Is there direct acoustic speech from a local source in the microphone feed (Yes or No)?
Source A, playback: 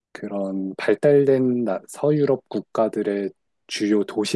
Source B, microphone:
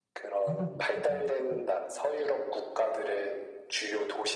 Yes